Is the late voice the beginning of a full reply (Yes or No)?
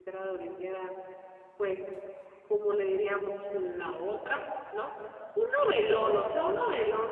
No